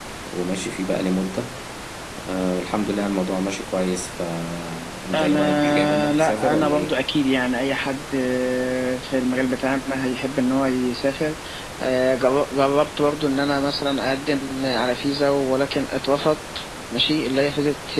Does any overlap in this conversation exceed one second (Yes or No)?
Yes